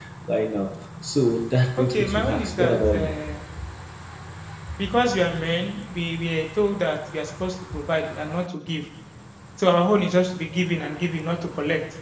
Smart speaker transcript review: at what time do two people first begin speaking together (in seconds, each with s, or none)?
1.8 s